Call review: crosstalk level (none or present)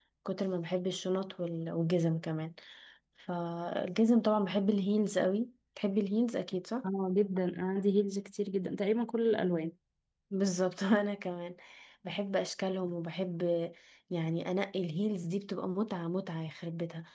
none